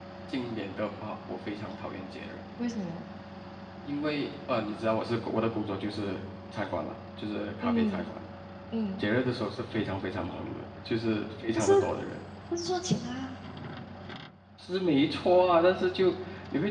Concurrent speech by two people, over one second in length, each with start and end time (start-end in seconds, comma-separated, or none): none